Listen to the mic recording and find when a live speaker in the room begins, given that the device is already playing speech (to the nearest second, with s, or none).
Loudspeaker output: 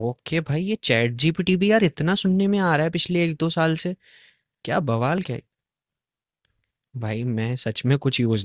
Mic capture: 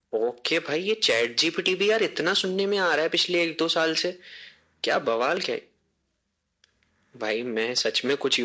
none